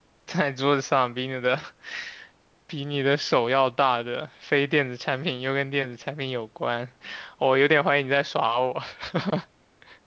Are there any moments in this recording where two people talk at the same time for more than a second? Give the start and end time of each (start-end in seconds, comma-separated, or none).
none